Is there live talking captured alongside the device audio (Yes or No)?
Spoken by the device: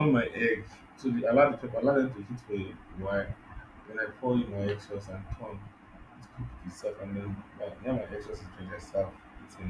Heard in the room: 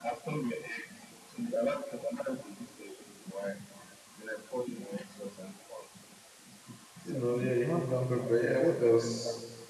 Yes